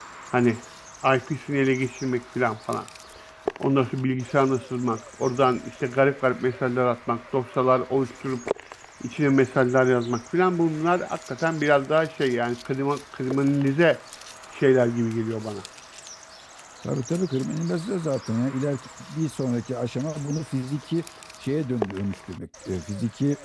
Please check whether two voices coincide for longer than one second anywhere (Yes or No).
No